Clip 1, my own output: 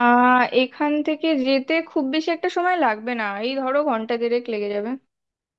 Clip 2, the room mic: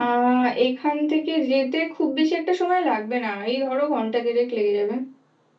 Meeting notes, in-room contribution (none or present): none